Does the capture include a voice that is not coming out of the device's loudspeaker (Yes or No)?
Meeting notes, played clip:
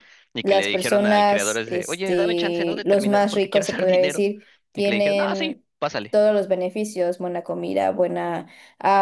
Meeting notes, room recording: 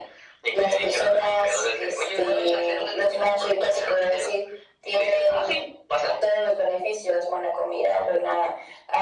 No